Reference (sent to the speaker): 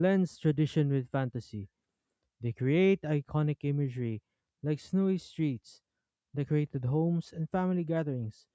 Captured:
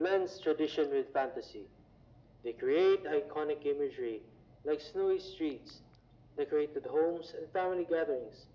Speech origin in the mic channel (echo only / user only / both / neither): echo only